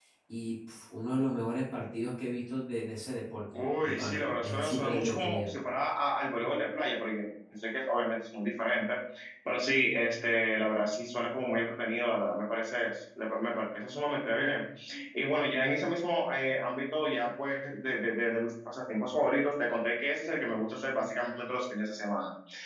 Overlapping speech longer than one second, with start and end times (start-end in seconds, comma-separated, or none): 3.6-5.5